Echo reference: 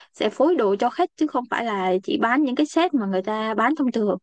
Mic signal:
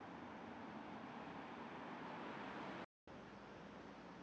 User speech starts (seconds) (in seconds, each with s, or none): none